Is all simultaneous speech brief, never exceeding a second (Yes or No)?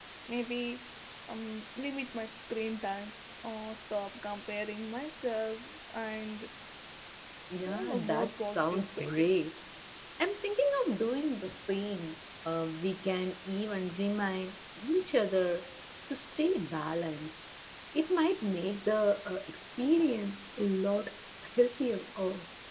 No